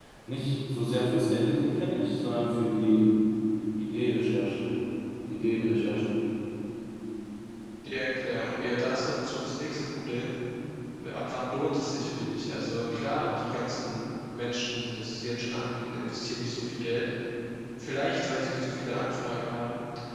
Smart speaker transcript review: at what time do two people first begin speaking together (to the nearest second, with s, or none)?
none